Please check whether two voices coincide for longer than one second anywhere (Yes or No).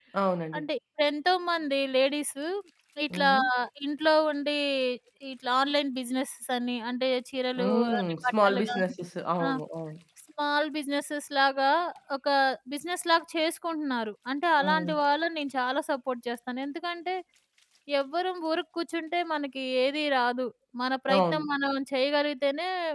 Yes